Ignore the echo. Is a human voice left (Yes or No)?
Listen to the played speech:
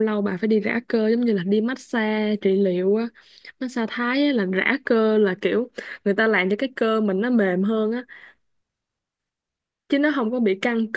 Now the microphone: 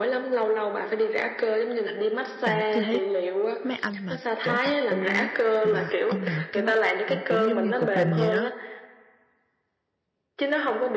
Yes